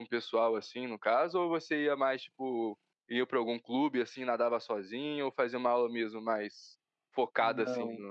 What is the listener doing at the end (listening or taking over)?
taking over